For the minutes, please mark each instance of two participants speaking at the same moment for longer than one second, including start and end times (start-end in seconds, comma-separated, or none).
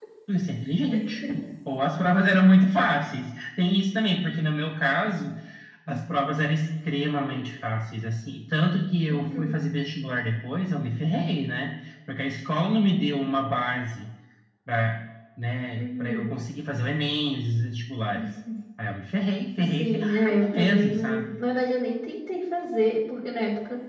19.6-21.3